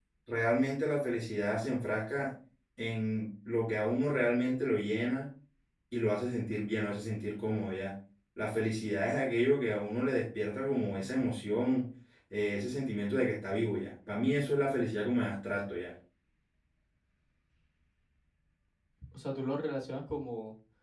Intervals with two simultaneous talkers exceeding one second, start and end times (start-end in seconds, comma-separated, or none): none